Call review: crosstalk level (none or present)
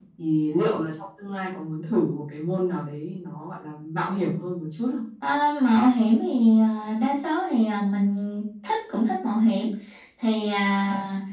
none